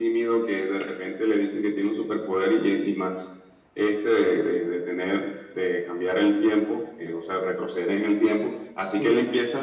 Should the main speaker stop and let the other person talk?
No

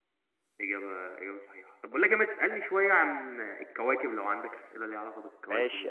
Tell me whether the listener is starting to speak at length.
Yes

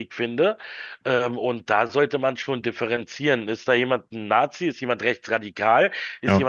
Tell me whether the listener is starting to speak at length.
No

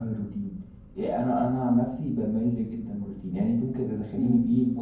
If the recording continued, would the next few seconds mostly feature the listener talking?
No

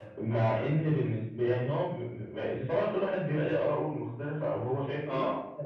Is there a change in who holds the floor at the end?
Yes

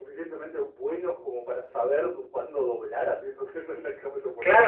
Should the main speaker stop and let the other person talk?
Yes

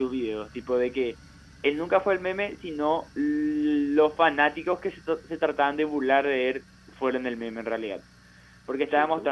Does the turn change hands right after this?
No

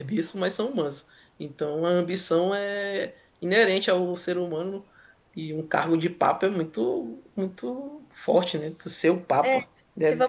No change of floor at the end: No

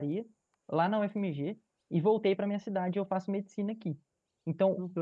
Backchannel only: Yes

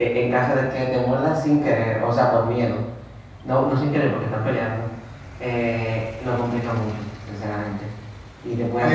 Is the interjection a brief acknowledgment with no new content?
No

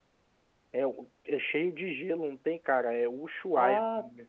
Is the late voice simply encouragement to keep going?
No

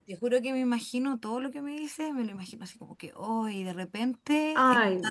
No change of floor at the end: Yes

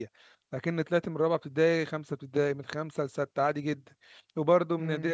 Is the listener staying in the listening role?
Yes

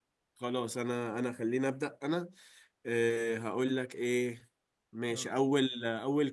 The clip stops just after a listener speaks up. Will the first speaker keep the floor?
Yes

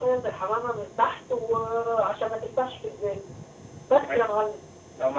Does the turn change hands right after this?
Yes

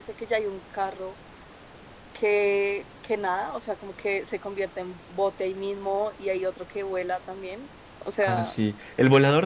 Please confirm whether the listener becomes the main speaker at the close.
Yes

